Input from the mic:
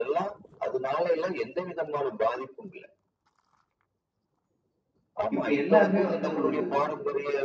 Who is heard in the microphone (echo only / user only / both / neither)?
both